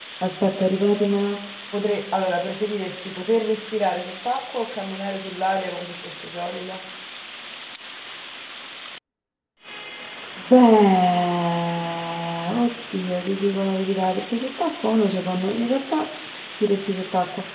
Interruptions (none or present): none